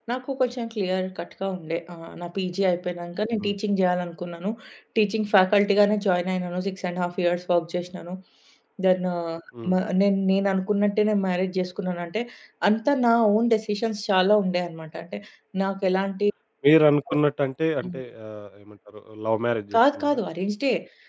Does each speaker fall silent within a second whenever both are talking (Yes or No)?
Yes